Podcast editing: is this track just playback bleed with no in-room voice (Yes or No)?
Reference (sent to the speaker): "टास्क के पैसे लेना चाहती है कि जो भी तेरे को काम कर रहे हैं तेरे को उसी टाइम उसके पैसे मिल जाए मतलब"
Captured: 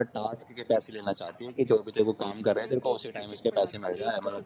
No